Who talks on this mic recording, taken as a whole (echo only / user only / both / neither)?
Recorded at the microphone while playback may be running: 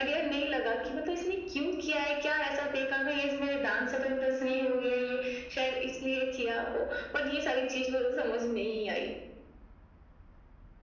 echo only